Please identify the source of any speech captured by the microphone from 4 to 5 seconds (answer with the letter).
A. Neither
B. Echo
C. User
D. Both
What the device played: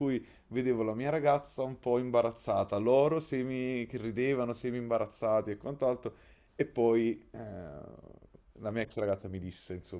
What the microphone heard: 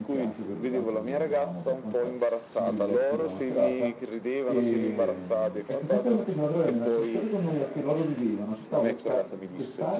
D